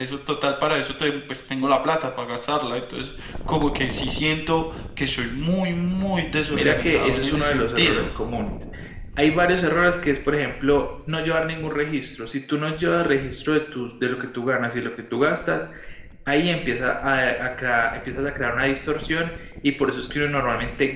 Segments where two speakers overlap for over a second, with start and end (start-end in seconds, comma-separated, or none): 6.5-8.1